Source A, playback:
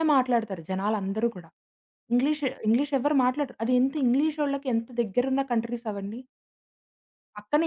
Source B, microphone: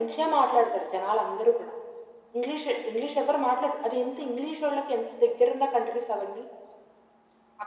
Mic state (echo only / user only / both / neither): echo only